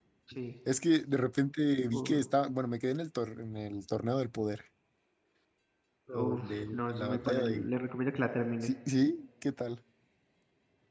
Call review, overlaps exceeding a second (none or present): present